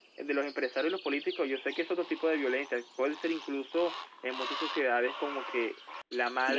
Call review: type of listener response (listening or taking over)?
taking over